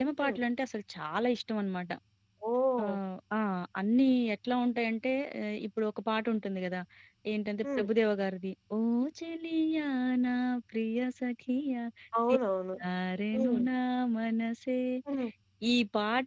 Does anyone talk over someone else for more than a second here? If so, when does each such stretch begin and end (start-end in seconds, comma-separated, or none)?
none